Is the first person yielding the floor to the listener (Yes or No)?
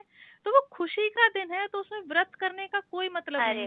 Yes